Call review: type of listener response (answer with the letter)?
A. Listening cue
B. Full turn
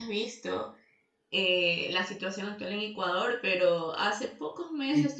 A